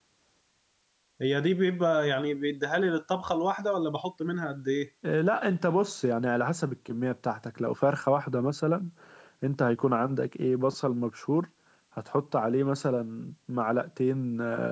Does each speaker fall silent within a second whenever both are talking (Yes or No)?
Yes